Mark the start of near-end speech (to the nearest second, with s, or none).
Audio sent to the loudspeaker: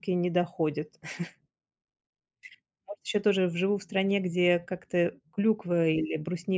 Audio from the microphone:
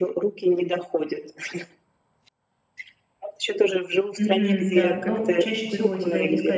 4 s